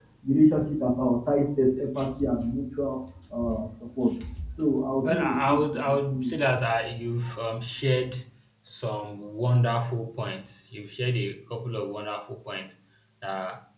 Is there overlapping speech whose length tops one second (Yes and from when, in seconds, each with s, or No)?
Yes, from 5.0 s